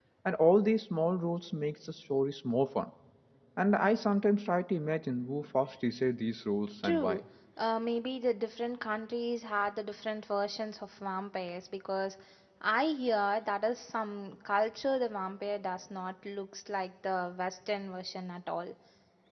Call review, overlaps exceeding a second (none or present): none